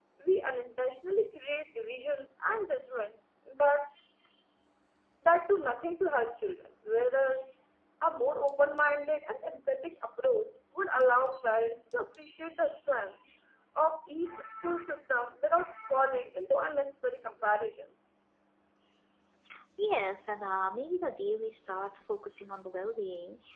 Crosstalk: none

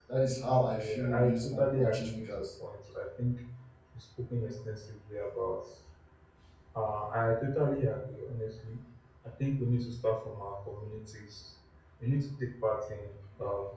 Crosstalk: present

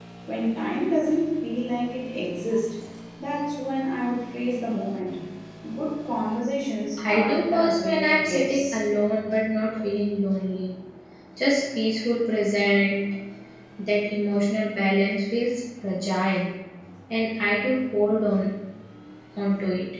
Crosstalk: present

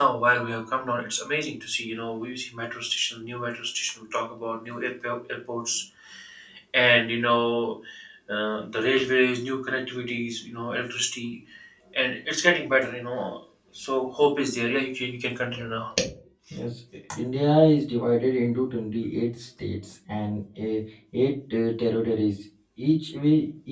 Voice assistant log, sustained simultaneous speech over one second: none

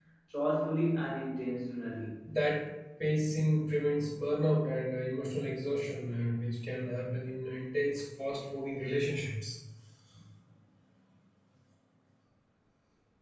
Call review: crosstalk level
none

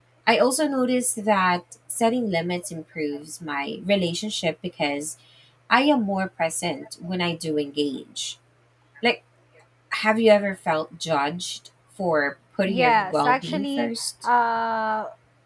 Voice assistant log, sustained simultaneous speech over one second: present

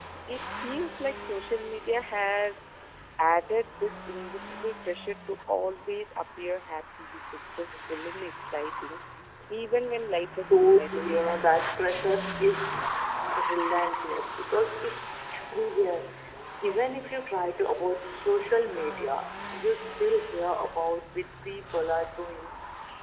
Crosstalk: present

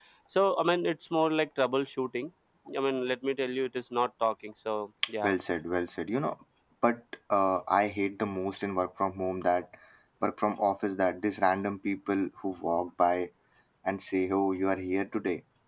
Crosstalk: none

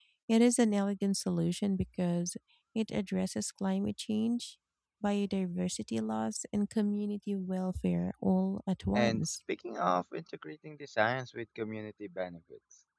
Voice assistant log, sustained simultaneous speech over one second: none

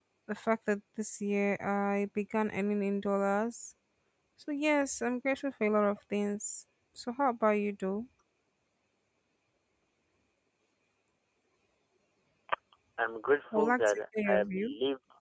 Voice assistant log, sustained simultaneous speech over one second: present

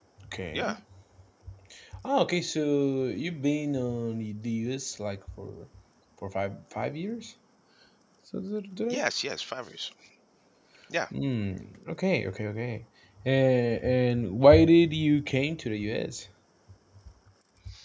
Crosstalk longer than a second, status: none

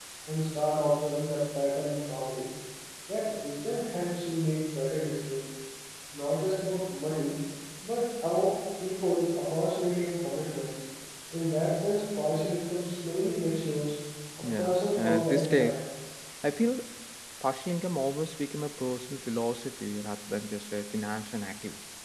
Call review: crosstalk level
present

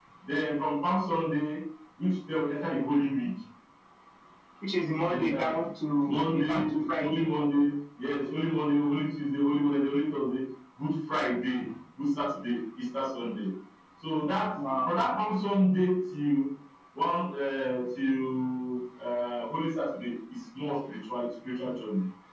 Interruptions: present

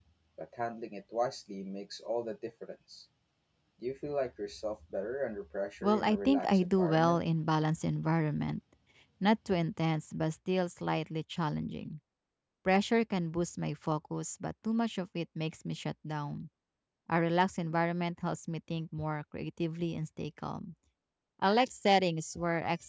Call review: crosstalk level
present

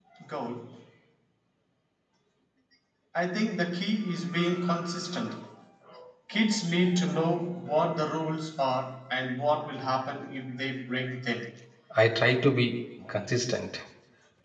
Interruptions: none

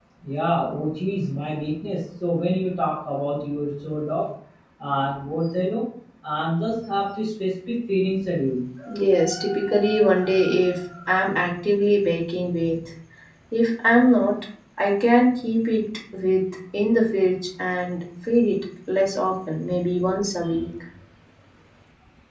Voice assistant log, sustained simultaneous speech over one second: none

